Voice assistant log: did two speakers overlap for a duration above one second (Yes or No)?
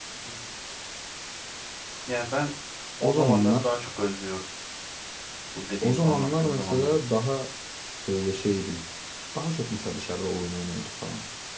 Yes